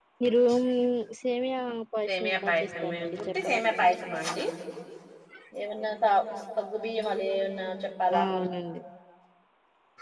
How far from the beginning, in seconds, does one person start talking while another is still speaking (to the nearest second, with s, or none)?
2 s